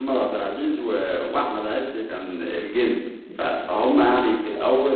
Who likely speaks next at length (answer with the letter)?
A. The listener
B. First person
B